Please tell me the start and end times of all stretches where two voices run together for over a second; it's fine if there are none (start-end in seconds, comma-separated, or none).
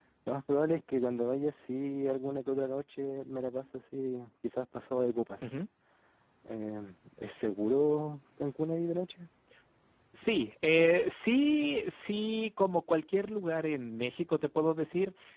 none